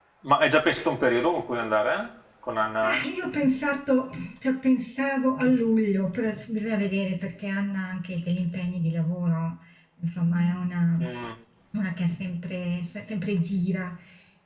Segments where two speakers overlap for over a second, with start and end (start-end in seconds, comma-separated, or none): none